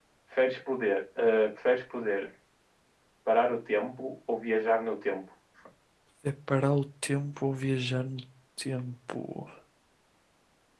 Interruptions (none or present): none